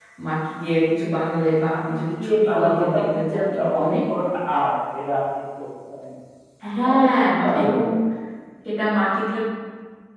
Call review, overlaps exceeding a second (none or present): present